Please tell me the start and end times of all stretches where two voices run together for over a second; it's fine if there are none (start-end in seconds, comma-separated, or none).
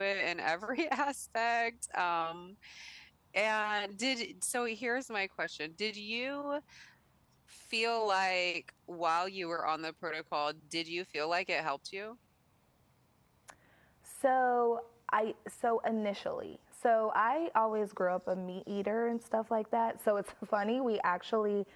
none